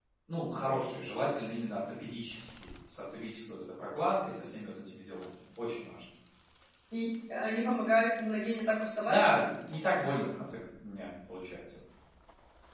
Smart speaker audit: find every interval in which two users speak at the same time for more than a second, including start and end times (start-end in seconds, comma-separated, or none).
none